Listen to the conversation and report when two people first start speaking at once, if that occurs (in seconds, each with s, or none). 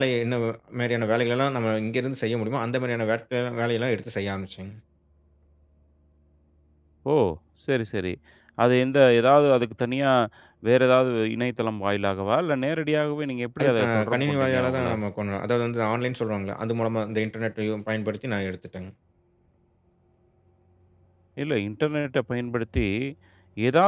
13.6 s